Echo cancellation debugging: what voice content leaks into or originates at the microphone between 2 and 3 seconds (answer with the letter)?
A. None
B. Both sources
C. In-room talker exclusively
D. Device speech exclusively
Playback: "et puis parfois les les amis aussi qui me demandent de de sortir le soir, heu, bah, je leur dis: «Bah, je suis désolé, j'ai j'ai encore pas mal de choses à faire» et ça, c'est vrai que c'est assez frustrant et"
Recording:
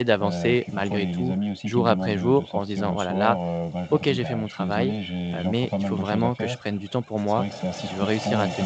B